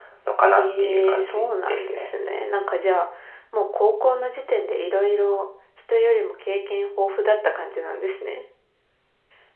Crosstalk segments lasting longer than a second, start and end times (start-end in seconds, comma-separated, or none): 0.6-2.1